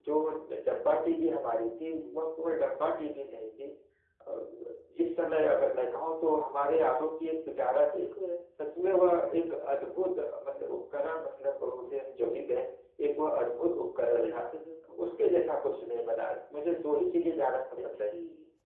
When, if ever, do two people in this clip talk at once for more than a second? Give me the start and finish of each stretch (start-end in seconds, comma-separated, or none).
none